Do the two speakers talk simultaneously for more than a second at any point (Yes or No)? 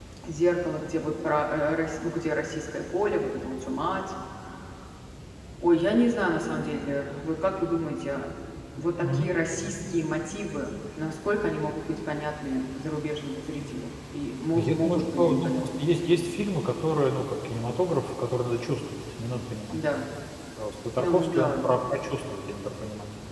Yes